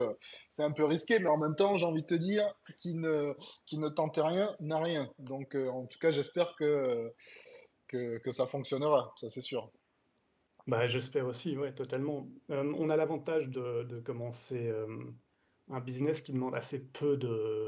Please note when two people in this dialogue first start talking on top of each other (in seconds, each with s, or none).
none